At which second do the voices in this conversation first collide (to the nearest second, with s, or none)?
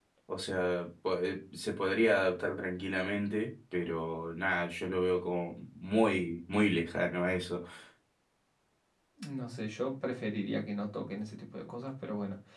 none